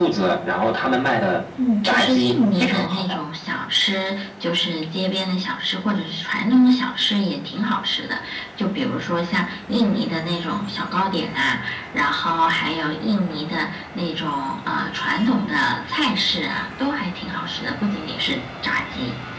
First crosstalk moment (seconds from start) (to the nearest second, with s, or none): 2 s